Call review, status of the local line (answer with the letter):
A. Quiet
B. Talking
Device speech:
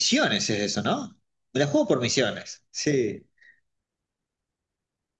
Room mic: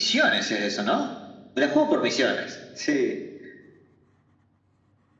A